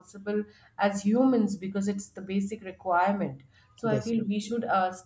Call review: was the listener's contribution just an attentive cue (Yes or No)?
Yes